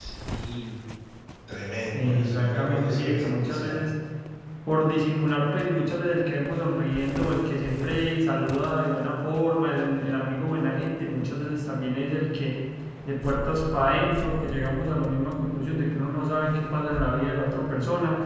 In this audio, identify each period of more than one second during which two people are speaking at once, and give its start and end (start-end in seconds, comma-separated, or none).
1.9-3.8